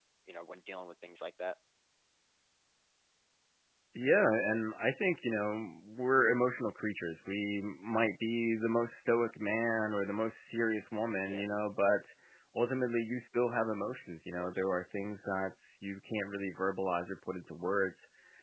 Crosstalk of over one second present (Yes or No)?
No